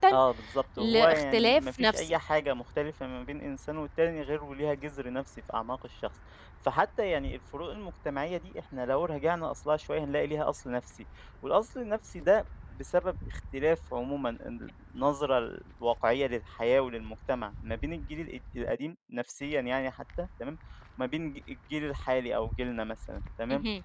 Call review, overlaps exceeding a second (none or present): present